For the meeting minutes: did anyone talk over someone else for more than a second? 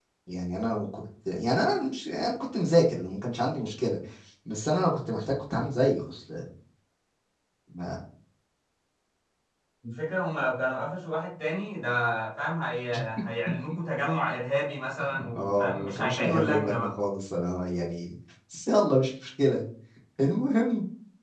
Yes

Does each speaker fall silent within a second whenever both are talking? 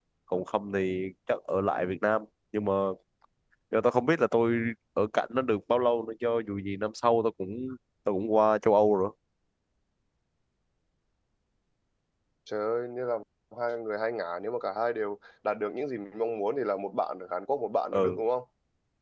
Yes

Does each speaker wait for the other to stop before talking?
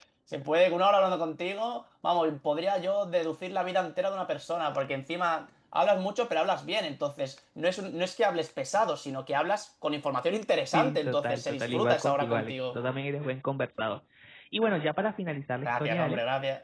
No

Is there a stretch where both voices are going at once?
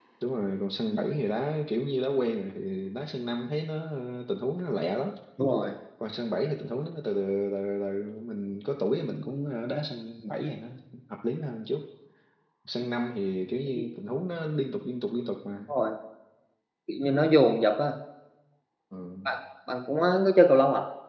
No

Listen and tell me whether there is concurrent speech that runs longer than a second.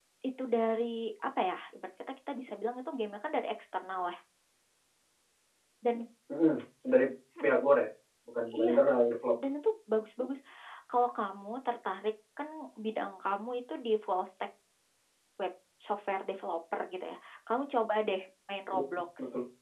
No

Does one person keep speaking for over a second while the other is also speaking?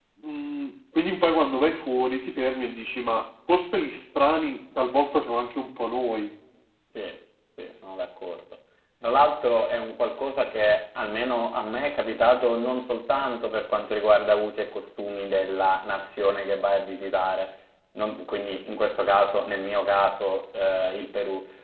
No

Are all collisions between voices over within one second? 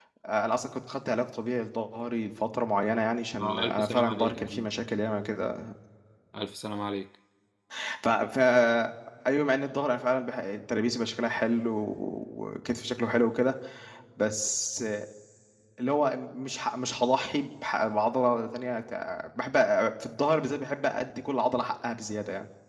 No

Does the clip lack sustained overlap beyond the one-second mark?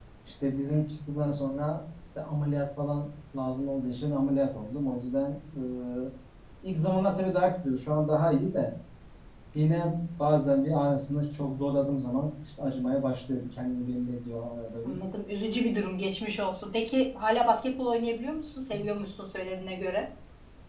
Yes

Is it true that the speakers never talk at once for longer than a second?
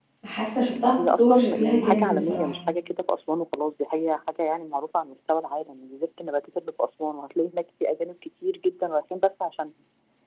No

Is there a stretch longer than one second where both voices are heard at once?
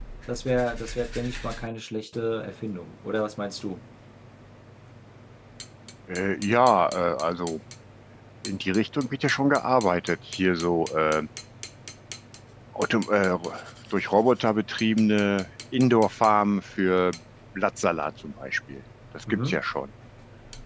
No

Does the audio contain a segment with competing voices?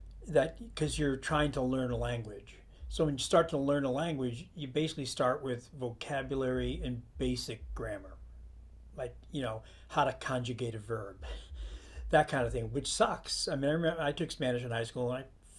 No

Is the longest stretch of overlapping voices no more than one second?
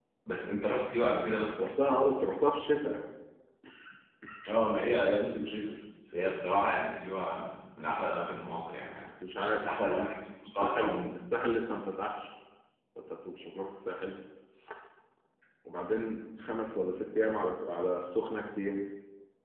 Yes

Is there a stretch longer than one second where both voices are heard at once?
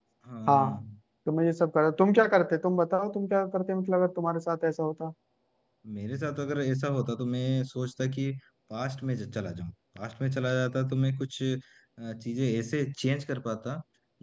No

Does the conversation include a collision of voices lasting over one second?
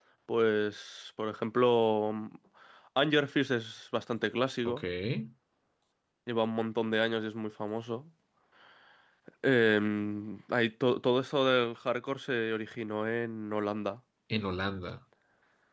No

